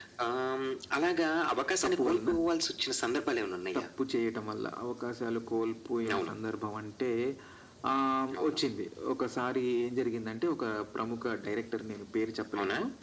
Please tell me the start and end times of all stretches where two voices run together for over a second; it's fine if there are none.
none

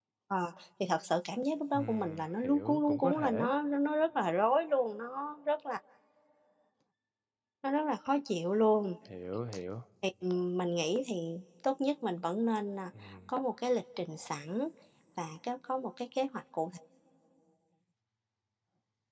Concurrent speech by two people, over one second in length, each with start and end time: 1.7-3.5

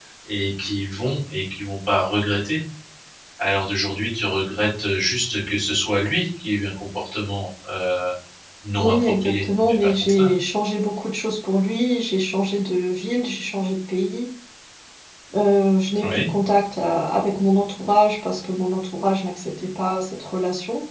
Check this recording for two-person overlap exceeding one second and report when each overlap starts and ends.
8.8-10.3

